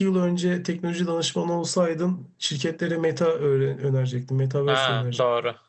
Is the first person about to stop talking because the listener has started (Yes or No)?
Yes